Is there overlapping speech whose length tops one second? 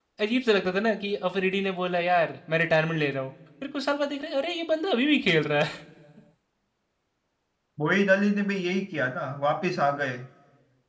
No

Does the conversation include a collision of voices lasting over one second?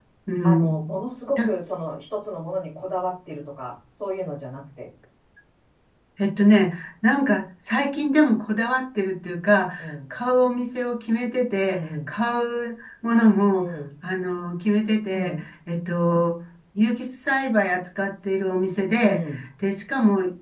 No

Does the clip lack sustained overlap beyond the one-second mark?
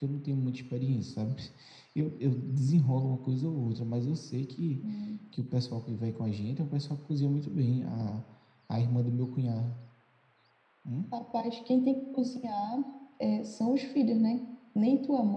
Yes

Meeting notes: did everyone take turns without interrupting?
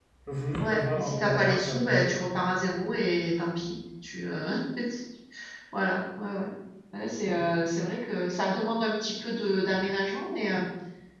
No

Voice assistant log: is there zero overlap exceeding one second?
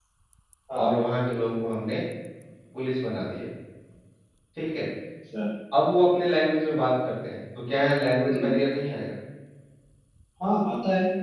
Yes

